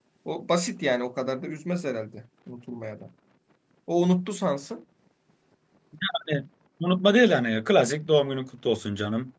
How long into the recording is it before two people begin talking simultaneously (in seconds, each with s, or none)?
none